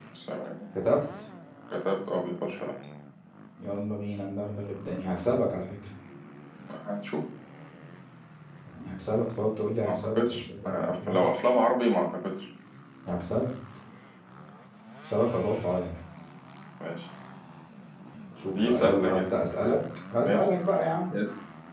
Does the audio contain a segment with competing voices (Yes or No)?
Yes